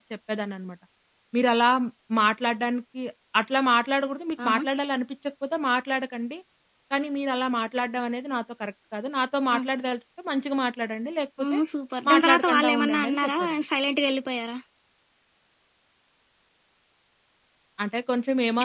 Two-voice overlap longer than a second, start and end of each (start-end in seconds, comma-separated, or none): 12.1-13.5